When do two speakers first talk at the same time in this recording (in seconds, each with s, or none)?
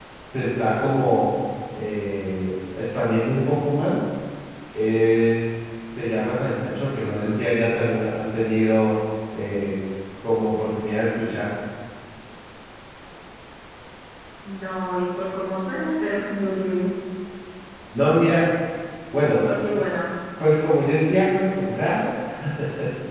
none